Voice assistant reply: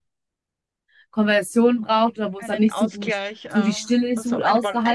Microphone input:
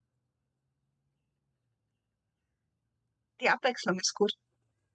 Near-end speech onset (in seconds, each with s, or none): 3.4 s